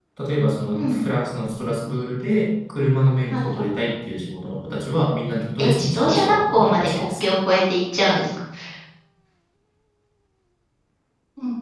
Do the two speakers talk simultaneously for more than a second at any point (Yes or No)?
Yes